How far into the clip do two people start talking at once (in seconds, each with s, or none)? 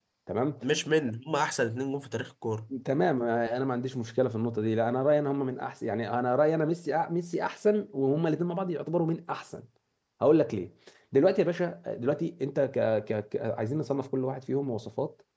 none